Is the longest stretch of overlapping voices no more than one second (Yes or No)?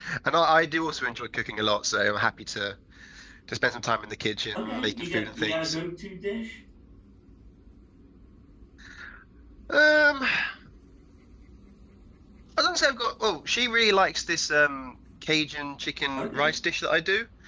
No